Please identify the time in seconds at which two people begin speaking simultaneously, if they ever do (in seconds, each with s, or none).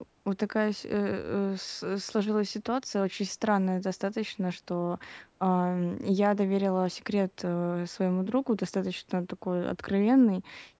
none